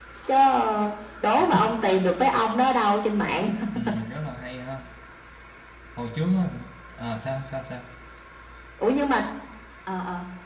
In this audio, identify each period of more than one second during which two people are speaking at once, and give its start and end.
none

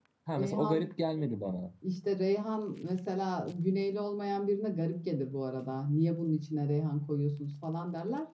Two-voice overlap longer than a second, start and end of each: none

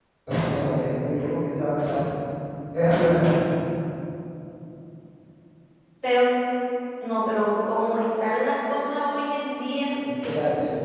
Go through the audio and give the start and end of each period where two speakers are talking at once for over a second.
none

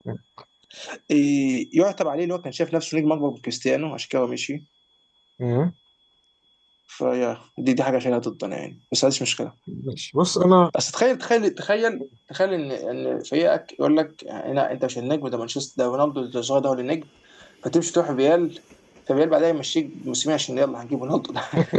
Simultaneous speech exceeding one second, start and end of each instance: none

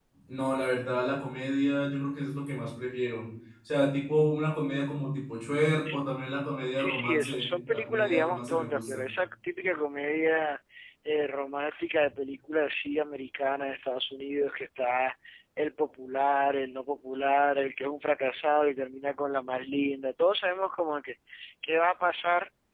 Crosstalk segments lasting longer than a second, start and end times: 6.8-9.0

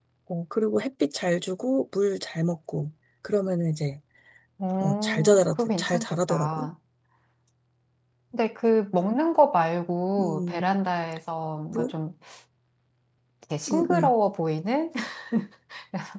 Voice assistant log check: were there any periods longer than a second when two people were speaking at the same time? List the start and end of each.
4.8-6.7

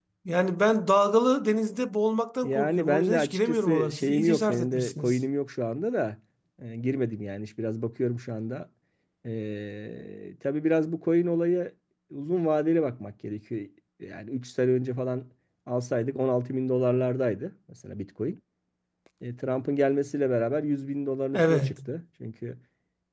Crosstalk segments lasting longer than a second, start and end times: 2.4-5.2

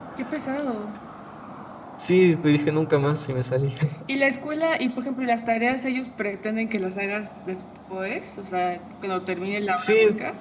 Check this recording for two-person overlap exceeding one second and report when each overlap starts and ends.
none

